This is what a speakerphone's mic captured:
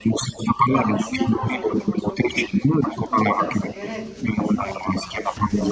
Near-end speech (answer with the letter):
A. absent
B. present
B